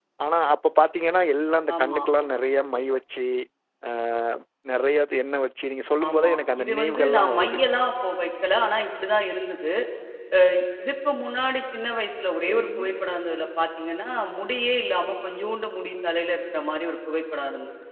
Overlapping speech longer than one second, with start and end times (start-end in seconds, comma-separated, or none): 6.1-7.6